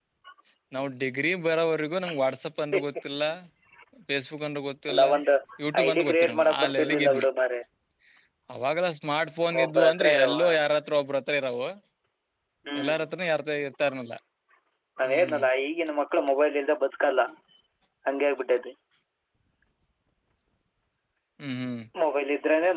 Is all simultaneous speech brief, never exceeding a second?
No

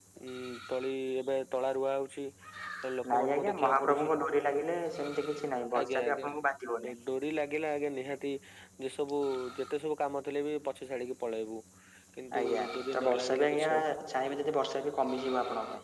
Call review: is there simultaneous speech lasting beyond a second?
Yes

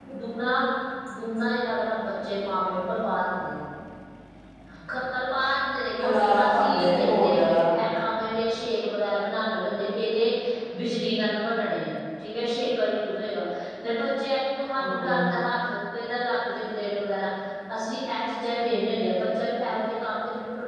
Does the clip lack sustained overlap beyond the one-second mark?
No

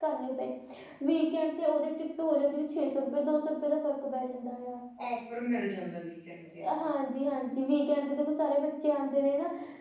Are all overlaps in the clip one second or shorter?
Yes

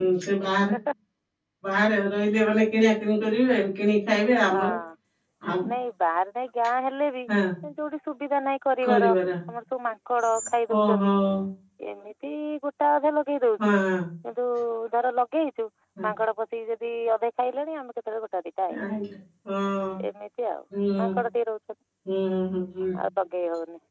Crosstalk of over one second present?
No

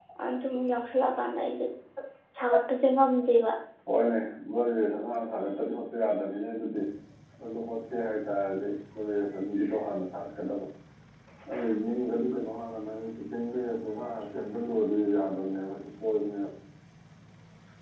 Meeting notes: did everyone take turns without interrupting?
Yes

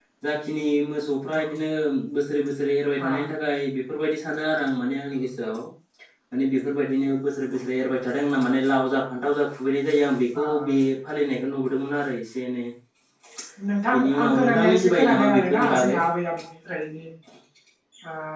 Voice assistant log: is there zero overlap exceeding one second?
No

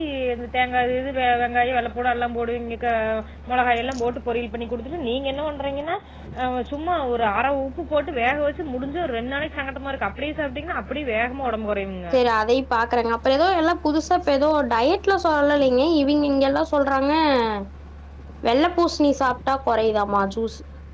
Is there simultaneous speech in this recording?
No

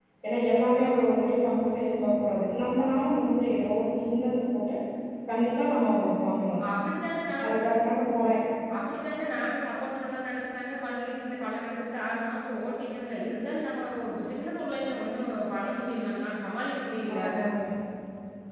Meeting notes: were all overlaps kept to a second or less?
Yes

